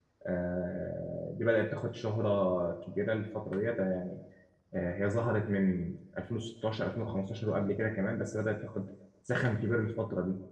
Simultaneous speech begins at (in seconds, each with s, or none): none